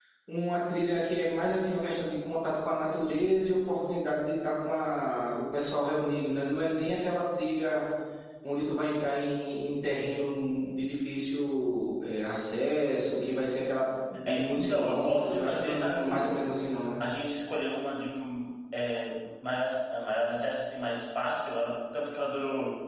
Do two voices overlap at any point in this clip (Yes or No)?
Yes